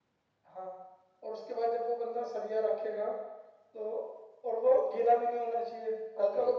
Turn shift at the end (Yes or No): No